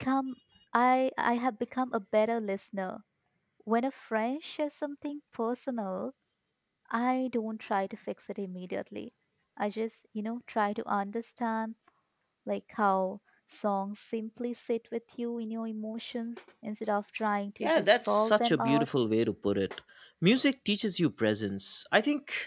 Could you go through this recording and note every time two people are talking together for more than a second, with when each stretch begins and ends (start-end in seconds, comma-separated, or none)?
17.6-18.9